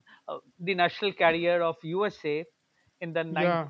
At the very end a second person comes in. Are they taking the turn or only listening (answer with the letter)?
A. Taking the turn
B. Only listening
B